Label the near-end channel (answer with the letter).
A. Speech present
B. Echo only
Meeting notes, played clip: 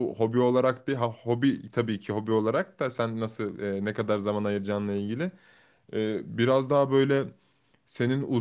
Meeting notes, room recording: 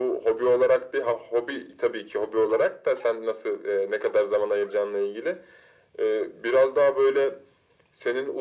B